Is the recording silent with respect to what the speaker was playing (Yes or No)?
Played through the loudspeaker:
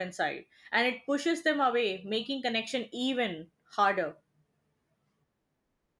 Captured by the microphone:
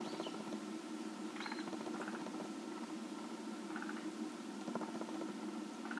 Yes